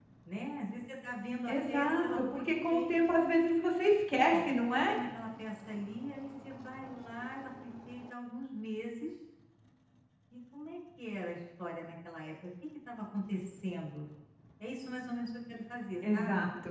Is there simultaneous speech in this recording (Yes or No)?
Yes